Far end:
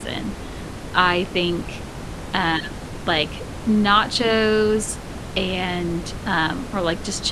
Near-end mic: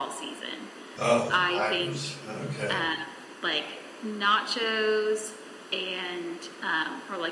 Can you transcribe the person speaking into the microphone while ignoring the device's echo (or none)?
Oh, the Packers, okay.